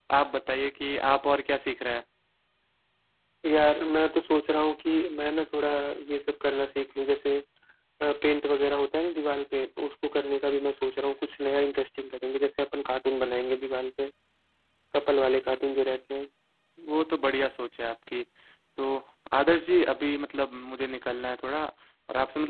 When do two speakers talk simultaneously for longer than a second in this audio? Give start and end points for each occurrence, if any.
none

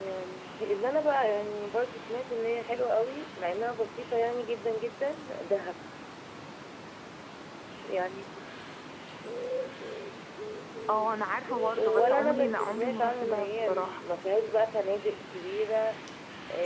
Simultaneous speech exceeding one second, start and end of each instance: 11.8-14.0

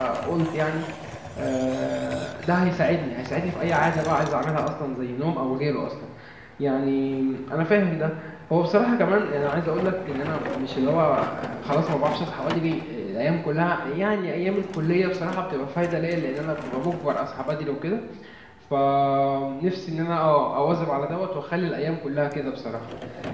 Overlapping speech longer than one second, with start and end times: none

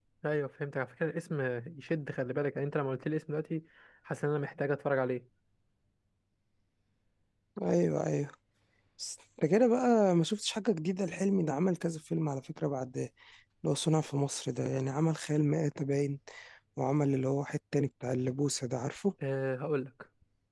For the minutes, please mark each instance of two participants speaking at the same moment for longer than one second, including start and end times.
none

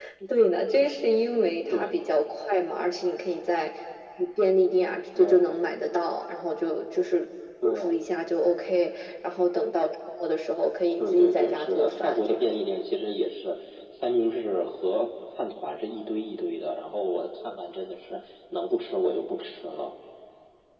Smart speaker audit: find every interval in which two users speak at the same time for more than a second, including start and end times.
11.0-12.6

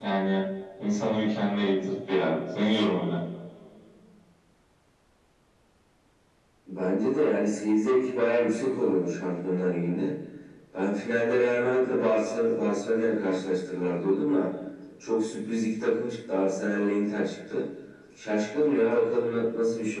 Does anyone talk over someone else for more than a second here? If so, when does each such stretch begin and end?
none

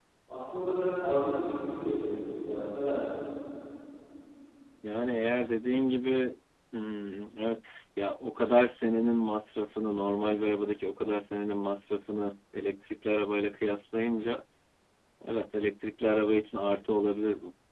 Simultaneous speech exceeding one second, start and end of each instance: none

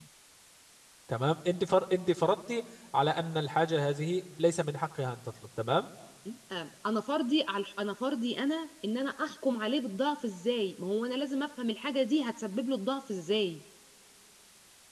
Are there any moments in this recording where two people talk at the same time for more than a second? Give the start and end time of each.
none

